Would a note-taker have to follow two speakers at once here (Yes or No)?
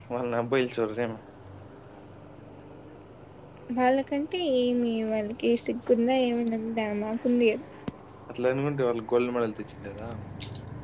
No